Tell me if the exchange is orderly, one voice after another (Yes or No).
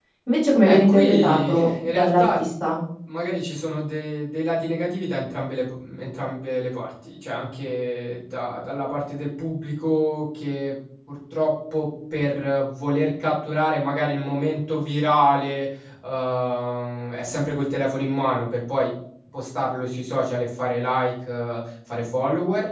No